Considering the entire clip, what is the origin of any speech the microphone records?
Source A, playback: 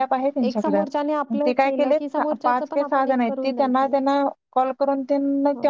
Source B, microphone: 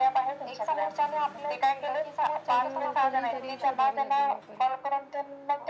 both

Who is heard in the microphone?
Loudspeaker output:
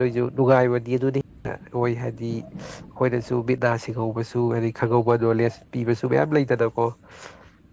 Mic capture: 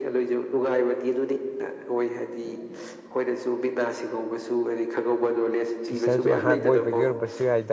both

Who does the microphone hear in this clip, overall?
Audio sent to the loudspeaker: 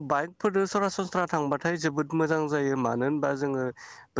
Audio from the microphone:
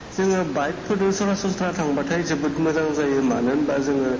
echo only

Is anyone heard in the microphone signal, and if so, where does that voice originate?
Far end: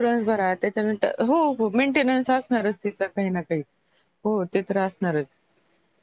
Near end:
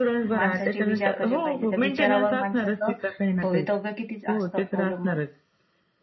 both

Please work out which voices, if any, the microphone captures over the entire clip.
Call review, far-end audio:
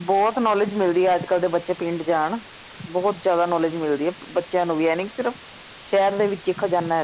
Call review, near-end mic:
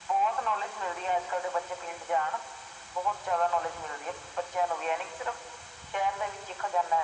echo only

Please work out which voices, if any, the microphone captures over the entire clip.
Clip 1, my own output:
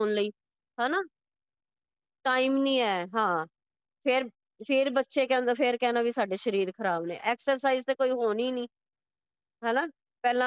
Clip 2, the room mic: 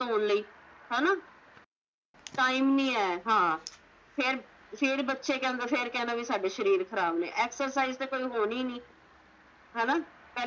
echo only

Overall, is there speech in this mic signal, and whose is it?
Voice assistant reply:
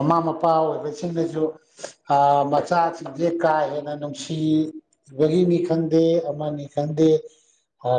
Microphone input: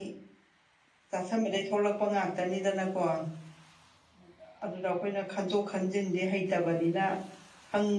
user only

